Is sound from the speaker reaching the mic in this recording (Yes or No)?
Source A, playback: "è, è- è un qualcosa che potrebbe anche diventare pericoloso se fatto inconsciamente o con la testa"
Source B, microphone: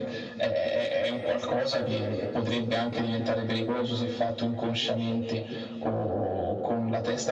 Yes